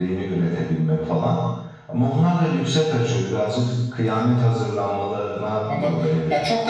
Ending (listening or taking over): taking over